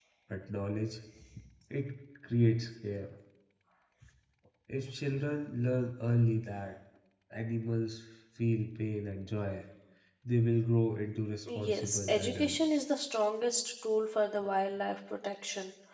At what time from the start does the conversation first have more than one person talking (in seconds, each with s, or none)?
11.5 s